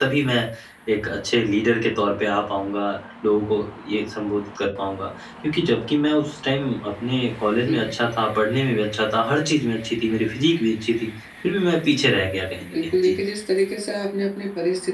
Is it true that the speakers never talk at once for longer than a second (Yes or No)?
Yes